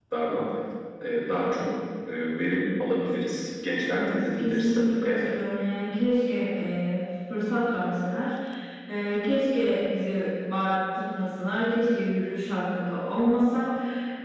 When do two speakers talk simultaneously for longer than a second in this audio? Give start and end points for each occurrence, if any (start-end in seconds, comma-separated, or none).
3.9-5.3